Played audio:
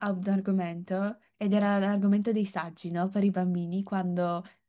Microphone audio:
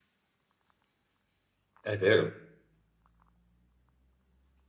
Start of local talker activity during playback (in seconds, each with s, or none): 1.8 s